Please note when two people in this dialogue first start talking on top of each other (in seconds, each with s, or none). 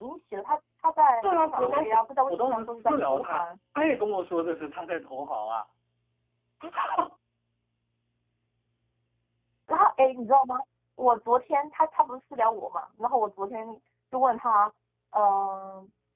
1.2 s